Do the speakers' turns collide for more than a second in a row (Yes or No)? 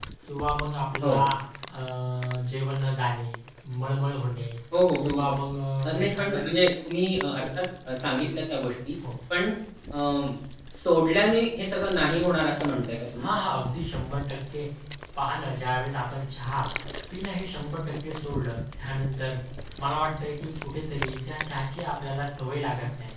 No